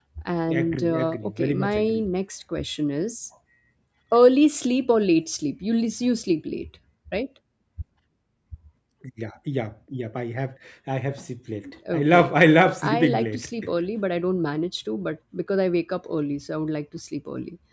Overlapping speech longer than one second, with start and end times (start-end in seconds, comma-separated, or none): 0.5-2.0, 11.9-13.5